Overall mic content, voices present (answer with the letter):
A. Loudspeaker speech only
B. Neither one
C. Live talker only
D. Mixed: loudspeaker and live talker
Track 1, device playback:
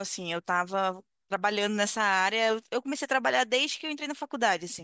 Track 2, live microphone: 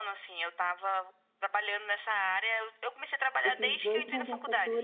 D